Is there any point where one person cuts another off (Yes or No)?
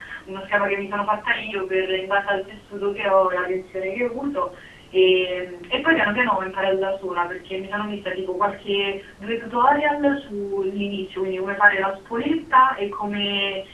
No